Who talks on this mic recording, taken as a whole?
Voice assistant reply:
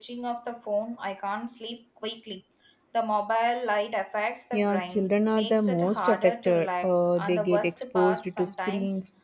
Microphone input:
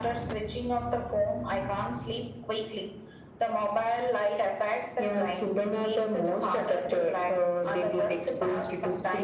echo only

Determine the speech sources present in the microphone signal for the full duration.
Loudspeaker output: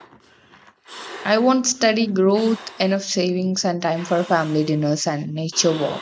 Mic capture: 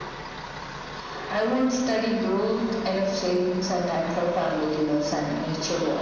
echo only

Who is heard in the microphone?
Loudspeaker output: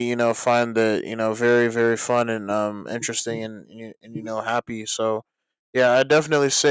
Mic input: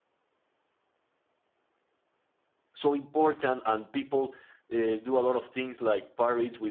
user only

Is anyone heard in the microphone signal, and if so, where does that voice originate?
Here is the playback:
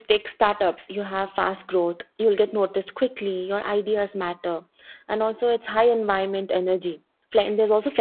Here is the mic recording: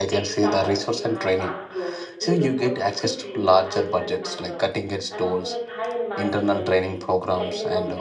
both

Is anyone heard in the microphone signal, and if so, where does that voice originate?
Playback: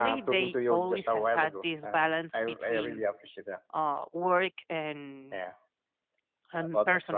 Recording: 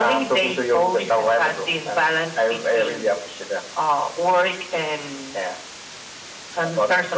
echo only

